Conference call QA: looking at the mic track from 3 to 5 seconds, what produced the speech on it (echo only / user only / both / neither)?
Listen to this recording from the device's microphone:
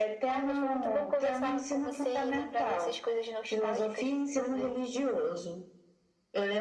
echo only